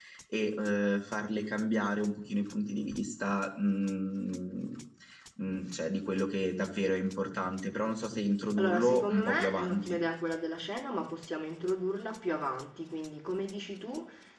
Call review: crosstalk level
present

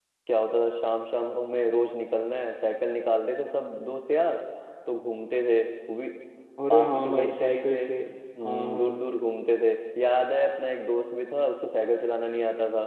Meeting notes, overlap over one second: present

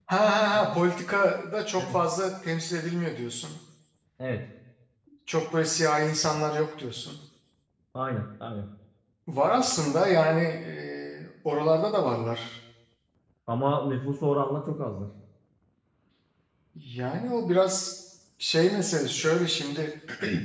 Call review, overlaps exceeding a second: none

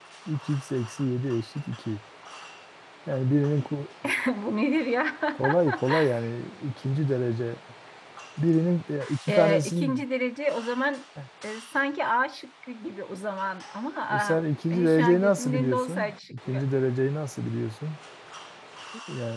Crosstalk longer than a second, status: present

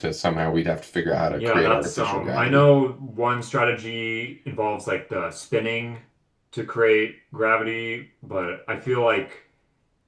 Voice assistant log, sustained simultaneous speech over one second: present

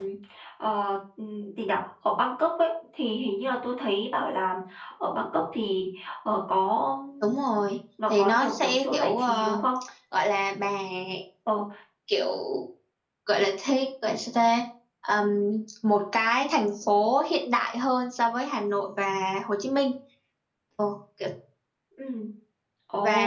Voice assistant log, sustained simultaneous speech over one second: present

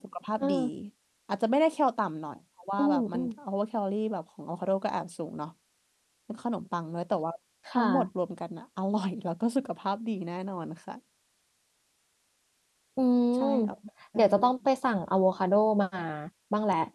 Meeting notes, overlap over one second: none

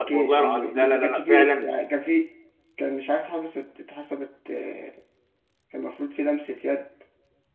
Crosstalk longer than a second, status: present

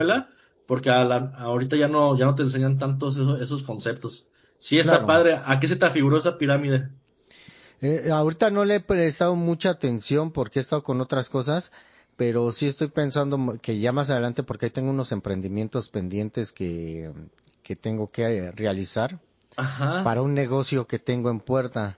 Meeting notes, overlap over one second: none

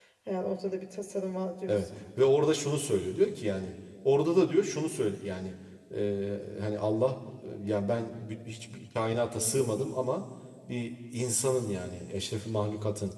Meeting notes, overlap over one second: none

